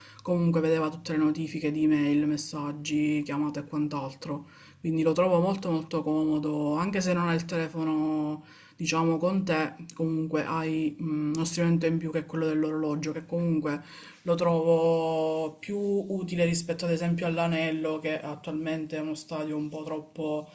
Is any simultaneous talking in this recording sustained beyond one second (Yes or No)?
No